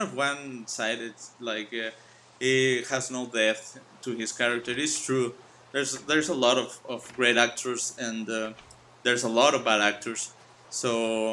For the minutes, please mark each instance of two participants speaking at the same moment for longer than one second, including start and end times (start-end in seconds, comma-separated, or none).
none